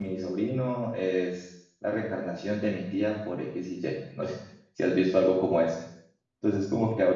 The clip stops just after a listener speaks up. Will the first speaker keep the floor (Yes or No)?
Yes